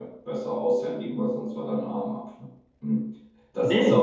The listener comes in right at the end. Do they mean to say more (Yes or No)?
Yes